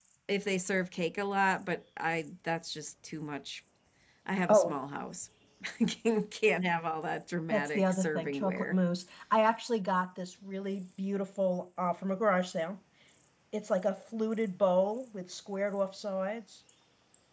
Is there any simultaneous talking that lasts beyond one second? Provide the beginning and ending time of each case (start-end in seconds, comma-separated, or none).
7.5-8.8